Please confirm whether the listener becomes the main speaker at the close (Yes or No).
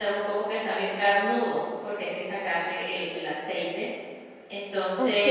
Yes